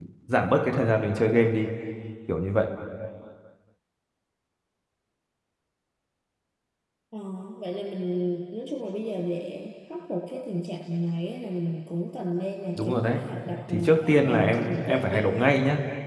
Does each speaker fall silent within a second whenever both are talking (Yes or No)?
No